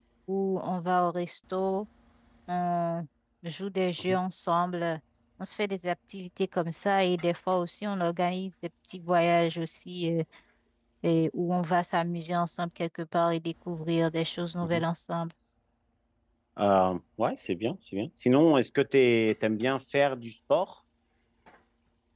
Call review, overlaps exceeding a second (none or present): none